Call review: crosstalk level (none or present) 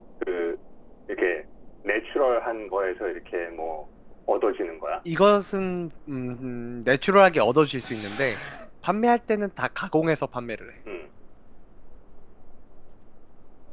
none